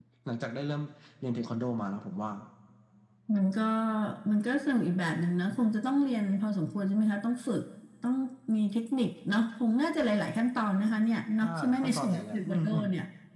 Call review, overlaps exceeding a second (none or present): present